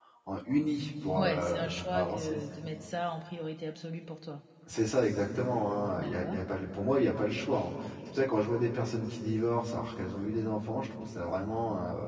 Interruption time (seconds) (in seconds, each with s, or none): 1.2 s